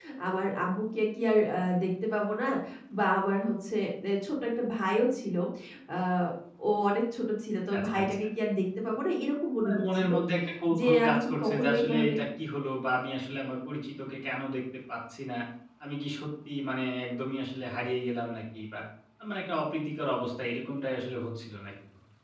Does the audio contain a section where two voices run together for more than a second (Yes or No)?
Yes